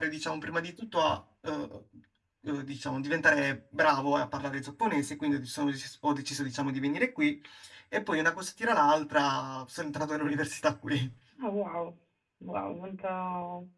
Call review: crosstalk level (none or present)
none